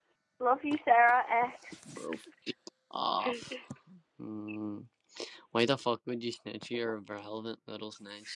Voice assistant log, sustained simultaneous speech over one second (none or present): none